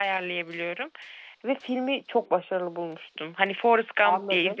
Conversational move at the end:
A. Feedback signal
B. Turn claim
B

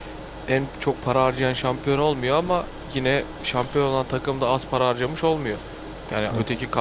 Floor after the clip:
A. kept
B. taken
A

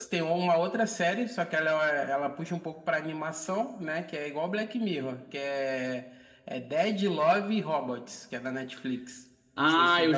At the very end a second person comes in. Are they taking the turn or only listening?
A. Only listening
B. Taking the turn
B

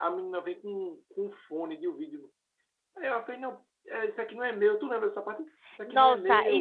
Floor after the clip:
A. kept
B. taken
B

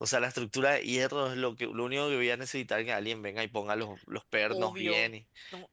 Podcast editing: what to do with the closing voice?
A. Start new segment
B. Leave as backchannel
A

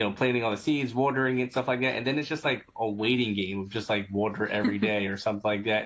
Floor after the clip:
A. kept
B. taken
A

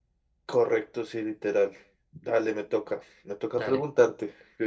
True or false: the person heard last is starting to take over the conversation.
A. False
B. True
A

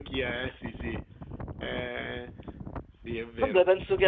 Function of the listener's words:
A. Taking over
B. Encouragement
A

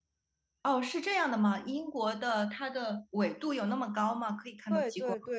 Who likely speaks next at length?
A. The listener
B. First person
A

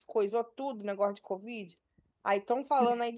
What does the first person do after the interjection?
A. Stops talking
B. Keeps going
B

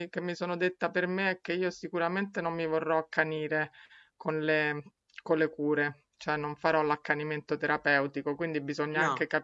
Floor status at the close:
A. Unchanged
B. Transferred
A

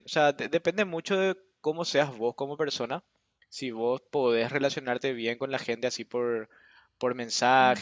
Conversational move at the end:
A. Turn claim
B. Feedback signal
B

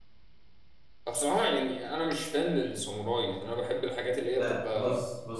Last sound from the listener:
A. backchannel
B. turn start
B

